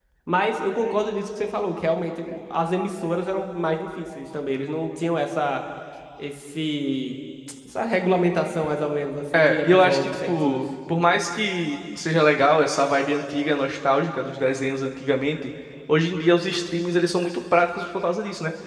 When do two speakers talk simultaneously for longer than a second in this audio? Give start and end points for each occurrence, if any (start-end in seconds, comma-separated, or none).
9.3-10.6